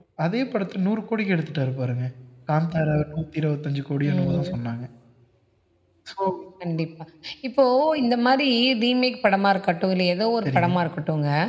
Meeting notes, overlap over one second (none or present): none